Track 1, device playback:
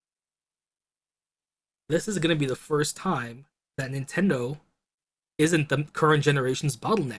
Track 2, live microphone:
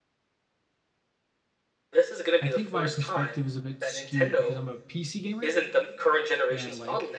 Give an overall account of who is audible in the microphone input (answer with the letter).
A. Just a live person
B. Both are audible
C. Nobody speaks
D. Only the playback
B